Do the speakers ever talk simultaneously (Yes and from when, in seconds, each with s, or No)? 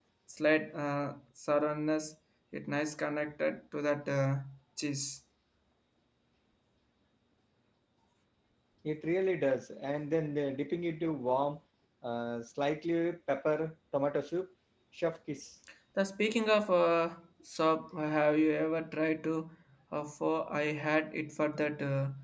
No